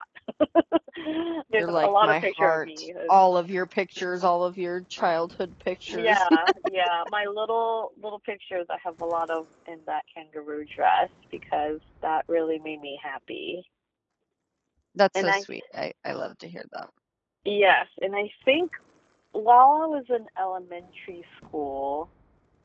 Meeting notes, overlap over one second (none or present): present